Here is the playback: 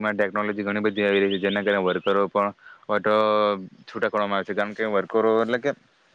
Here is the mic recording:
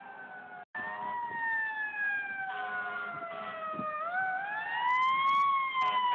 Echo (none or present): none